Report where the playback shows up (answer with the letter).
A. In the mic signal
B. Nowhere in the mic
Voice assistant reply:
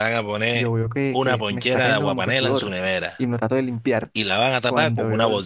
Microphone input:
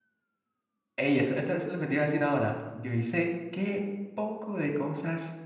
B